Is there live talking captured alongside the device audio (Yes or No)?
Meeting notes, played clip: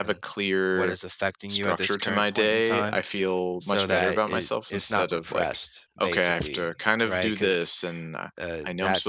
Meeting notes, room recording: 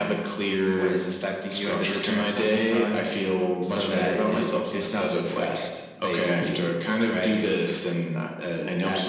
No